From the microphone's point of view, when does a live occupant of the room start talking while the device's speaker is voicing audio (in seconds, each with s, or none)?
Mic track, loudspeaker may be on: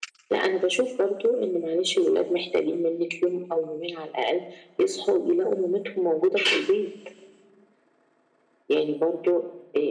none